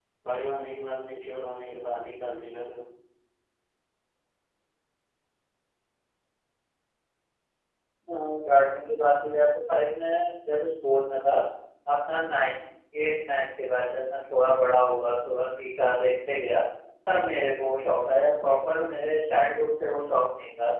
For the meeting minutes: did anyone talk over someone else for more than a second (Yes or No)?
No